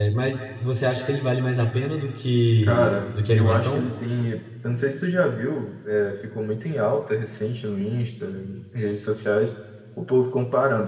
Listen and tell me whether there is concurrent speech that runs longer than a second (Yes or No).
Yes